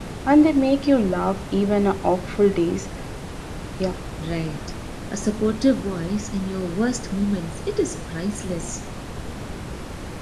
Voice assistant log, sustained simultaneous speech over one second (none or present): none